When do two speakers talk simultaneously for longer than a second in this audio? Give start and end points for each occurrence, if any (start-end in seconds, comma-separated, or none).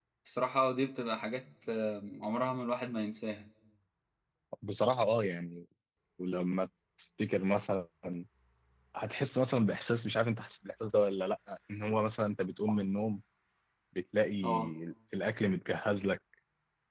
none